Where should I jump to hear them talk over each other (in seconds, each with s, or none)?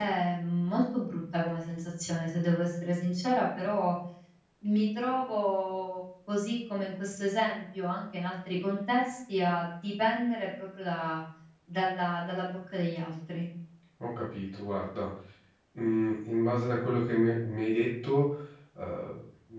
none